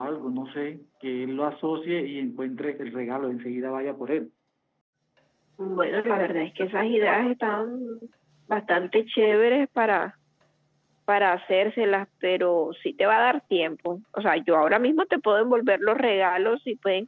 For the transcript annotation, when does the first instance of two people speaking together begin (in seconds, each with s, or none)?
none